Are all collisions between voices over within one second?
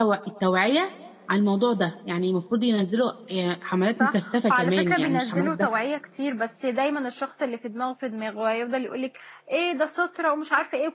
No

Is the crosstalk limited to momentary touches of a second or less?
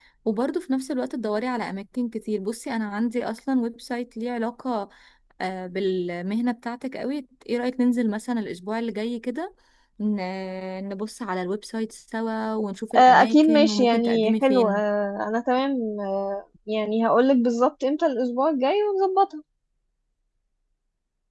No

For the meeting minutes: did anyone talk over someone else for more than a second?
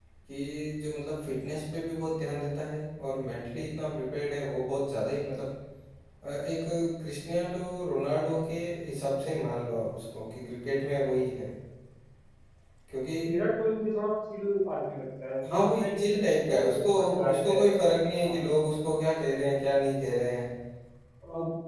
Yes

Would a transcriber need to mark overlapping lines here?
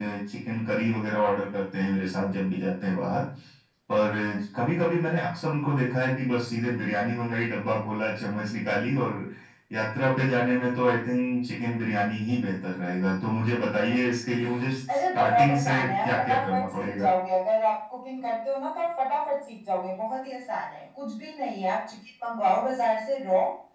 Yes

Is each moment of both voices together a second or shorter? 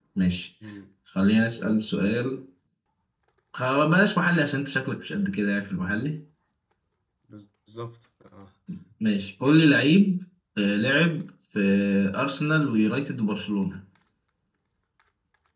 Yes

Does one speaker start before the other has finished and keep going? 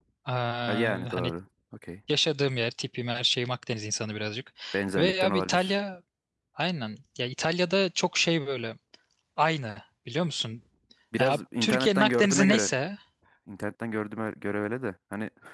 Yes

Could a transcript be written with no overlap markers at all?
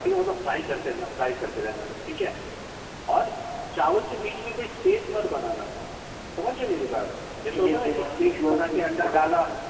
No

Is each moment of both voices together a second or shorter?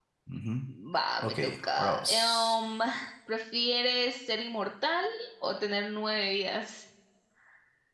No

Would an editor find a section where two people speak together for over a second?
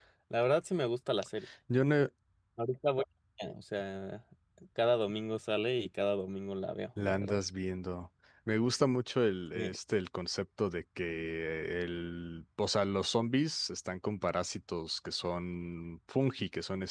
No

